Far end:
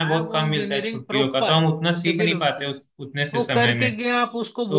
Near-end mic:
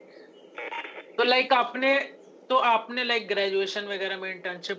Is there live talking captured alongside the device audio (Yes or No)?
Yes